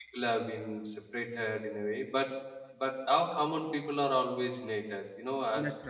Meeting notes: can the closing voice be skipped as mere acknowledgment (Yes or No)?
Yes